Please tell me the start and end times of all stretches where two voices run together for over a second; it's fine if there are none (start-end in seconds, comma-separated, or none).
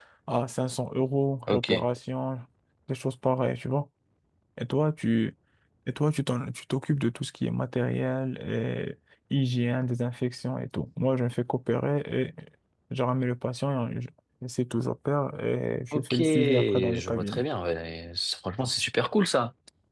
15.9-17.4